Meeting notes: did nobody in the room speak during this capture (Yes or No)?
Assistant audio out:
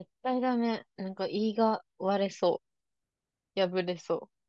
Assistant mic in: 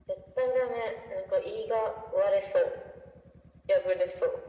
Yes